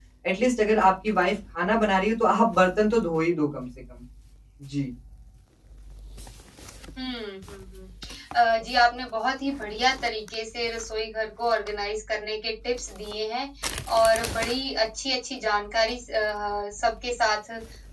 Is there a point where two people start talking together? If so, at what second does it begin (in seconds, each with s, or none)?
none